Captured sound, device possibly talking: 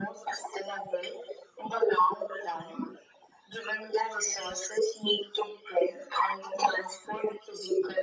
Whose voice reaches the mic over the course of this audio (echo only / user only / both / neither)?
echo only